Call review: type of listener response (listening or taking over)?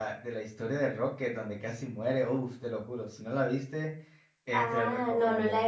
taking over